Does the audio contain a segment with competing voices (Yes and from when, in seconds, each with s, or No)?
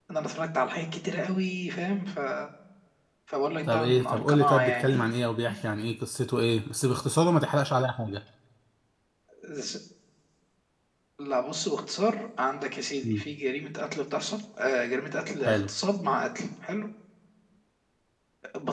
Yes, from 3.7 s